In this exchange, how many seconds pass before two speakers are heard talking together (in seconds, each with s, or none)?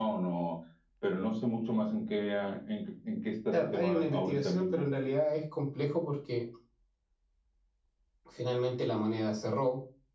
3.5 s